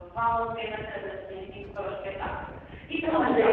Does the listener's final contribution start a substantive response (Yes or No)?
Yes